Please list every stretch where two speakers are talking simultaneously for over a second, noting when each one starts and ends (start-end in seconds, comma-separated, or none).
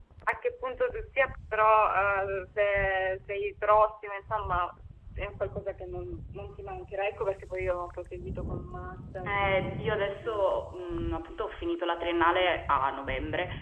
9.3-10.7